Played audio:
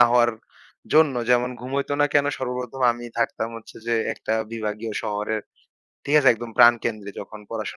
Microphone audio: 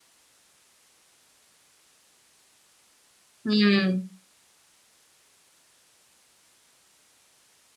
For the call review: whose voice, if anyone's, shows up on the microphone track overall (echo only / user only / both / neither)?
user only